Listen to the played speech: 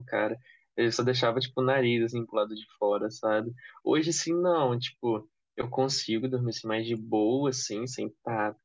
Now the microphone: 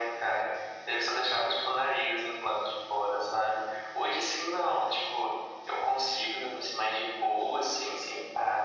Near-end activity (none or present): none